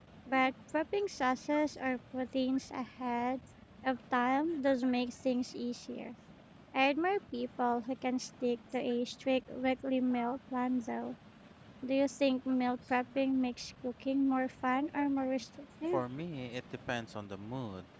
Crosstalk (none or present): none